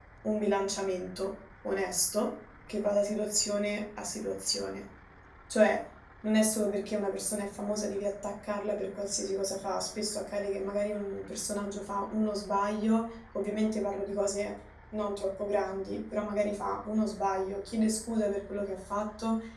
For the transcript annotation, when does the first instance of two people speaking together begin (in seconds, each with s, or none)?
none